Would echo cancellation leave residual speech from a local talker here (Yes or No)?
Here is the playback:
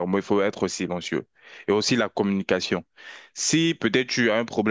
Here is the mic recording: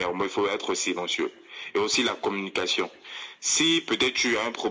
No